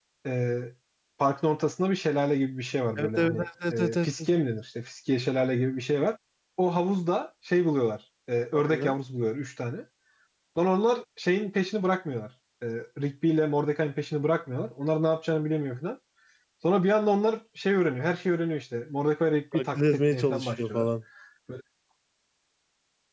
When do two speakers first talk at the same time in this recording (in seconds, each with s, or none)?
3.0 s